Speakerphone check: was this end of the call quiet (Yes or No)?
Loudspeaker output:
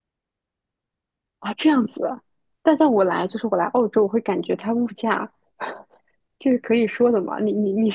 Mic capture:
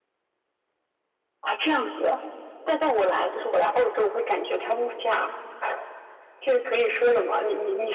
Yes